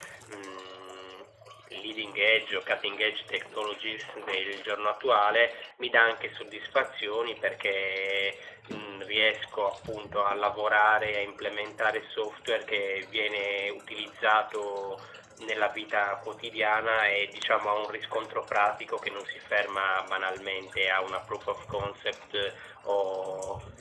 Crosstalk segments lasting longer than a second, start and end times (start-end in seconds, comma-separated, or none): none